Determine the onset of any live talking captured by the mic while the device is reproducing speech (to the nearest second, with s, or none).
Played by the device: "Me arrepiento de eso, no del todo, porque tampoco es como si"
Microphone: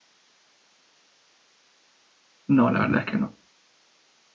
2 s